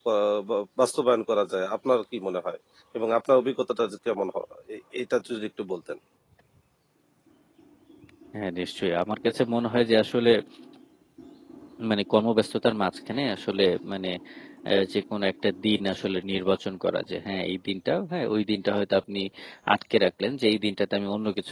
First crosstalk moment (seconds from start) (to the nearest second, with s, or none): none